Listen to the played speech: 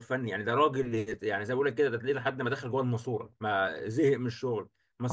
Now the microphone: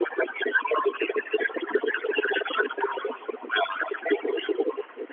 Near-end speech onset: none

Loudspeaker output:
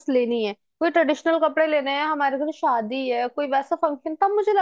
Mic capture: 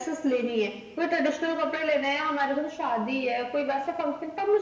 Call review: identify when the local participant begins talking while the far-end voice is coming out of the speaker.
none

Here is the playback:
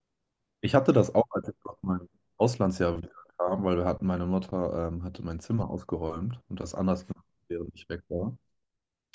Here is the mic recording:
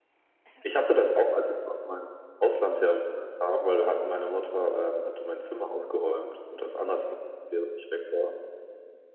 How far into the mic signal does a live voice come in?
none

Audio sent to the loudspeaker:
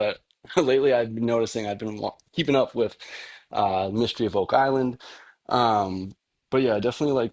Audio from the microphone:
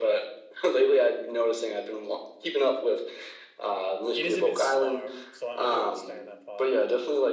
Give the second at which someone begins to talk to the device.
4.1 s

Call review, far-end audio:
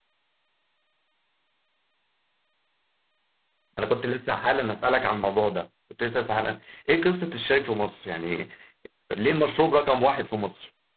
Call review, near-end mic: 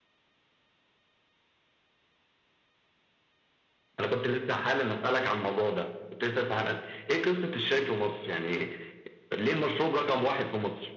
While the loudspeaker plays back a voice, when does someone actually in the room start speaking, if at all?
none

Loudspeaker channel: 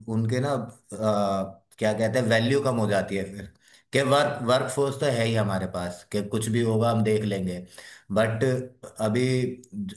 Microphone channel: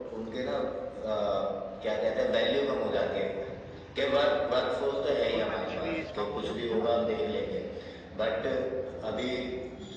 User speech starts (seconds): 5.3 s

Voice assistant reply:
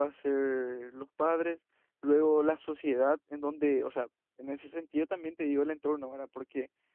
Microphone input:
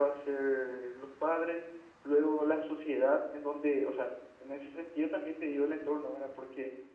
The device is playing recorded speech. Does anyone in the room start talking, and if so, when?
none

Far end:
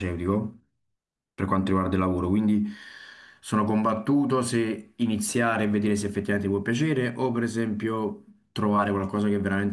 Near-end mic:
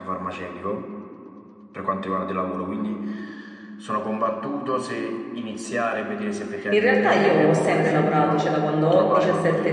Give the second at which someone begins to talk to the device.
6.7 s

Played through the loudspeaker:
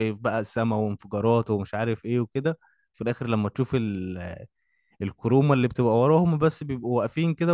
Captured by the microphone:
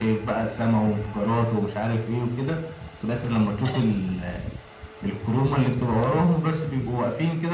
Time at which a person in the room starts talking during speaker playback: none

